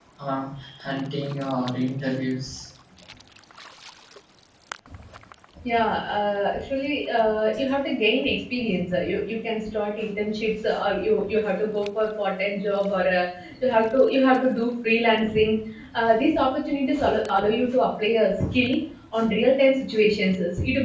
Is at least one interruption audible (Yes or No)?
No